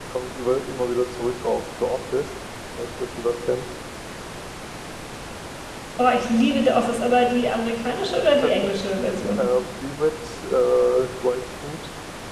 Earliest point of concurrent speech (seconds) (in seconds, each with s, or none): none